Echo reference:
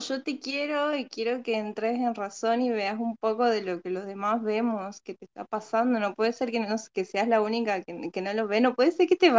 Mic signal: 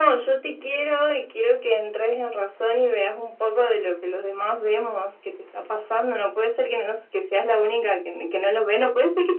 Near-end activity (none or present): none